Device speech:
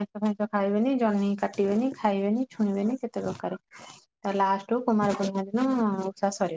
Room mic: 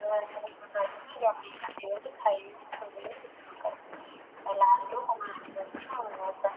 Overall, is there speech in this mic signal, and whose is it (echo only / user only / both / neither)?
echo only